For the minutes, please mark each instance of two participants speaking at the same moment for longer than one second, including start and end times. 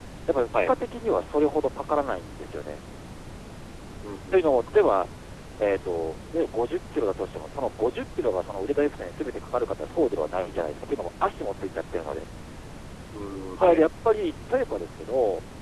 none

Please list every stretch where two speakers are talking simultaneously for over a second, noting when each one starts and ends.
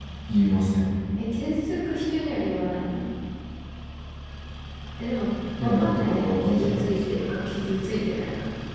5.6-7.0

